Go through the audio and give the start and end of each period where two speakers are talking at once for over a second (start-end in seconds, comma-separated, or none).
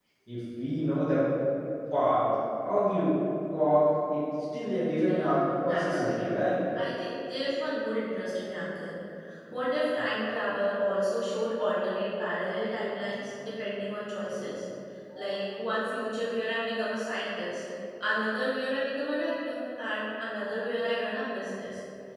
5.1-6.4